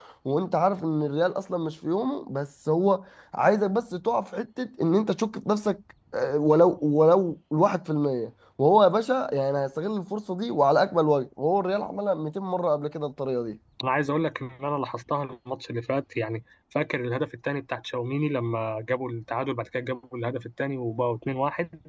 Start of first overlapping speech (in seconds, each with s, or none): none